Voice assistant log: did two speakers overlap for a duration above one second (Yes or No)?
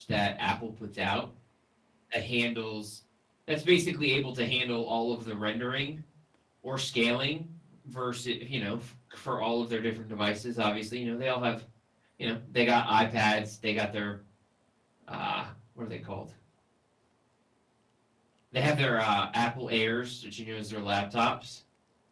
No